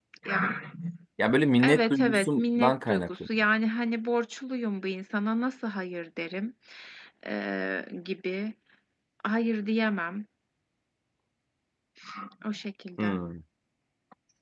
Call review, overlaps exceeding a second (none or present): present